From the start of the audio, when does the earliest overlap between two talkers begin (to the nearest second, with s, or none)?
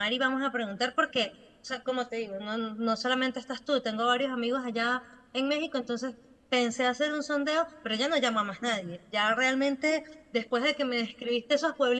none